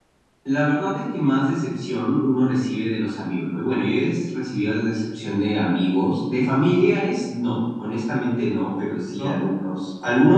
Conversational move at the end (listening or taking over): listening